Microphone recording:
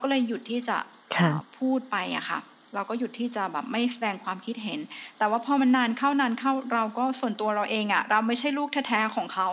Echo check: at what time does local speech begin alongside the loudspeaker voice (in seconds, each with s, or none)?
1.1 s